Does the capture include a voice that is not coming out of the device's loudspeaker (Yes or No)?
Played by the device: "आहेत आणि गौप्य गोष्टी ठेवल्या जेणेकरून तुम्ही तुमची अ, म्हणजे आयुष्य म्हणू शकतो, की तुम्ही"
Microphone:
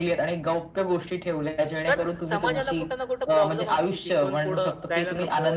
Yes